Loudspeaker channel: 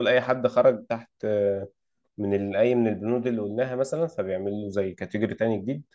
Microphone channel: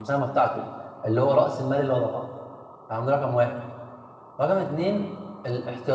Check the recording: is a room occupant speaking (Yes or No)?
Yes